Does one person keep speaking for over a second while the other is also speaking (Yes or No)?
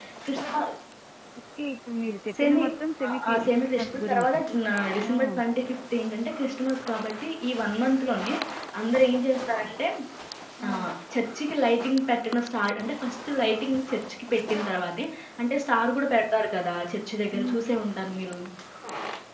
Yes